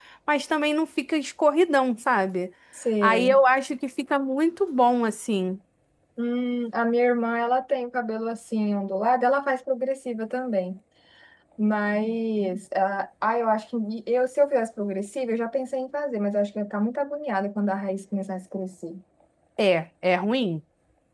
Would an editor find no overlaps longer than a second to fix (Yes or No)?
Yes